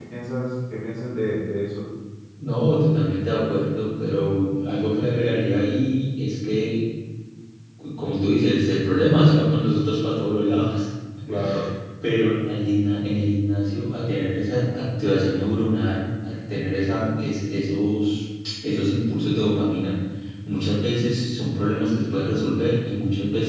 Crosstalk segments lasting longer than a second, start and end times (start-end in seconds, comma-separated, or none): none